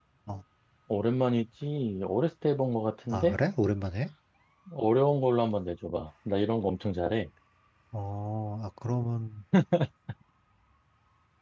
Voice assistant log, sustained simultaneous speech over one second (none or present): none